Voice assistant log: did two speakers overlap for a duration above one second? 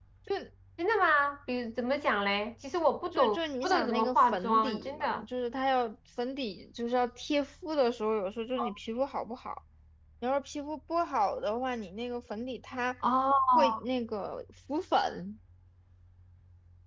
Yes, from 3.1 s

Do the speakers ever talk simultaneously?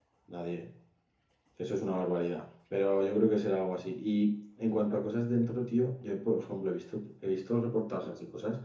No

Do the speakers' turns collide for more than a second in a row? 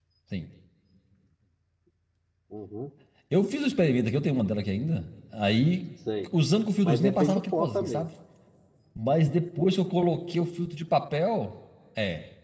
Yes, from 6.8 s

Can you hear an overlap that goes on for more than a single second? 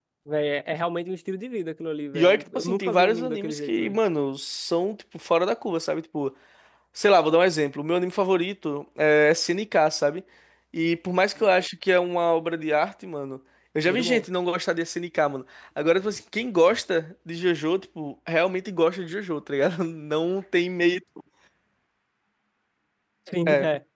Yes, from 2.1 s

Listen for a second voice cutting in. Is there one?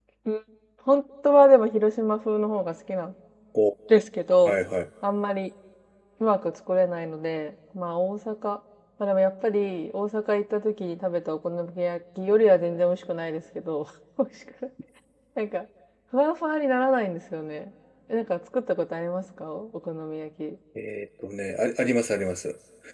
No

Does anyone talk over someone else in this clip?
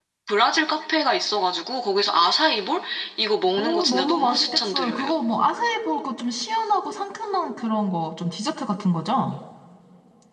Yes, from 3.5 s

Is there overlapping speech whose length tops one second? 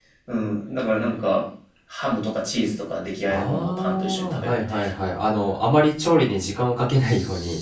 Yes, from 3.3 s

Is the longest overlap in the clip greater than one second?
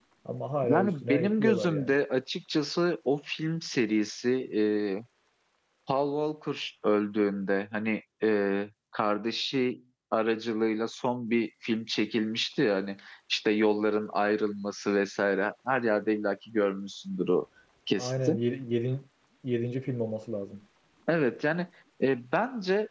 Yes, from 0.6 s

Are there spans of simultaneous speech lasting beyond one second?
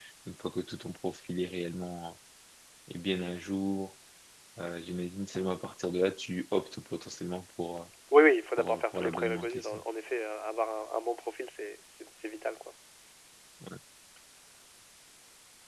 Yes, from 8.6 s

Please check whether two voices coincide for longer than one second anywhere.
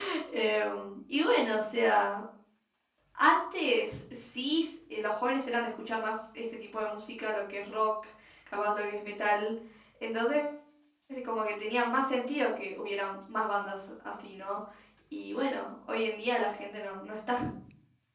No

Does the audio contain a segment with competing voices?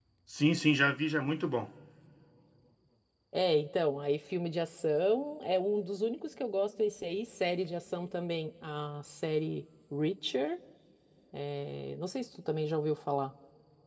No

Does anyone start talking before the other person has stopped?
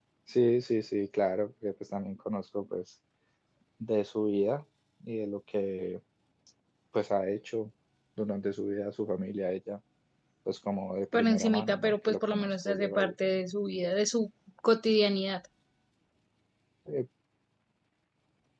Yes, from 11.1 s

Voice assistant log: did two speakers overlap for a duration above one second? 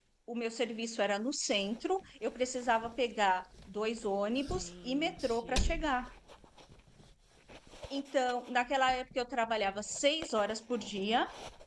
Yes, from 4.5 s

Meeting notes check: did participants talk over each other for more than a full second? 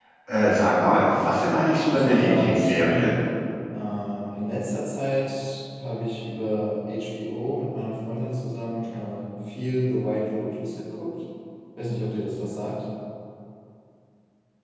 Yes, from 1.7 s

